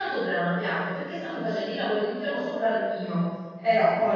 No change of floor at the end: Yes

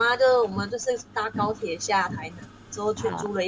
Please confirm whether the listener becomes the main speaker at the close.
No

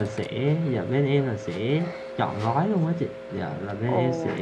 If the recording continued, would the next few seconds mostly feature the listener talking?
No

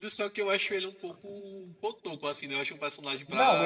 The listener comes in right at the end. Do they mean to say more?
Yes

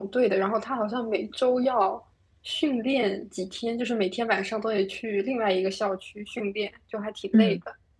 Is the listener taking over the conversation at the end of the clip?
Yes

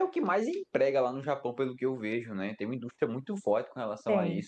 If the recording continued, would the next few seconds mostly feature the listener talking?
Yes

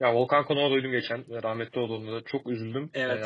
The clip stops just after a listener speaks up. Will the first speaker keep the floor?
No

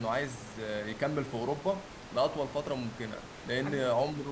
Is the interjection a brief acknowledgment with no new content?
Yes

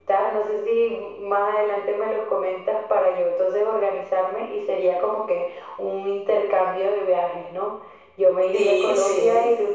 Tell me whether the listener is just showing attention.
Yes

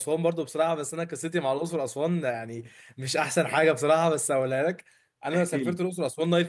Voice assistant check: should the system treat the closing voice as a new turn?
No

